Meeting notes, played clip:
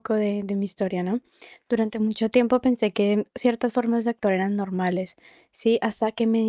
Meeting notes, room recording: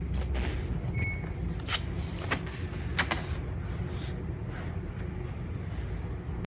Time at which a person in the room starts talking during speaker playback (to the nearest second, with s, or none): none